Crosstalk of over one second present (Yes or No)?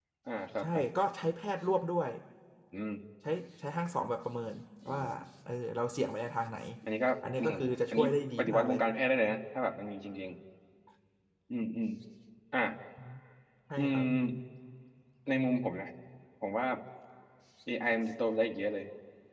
Yes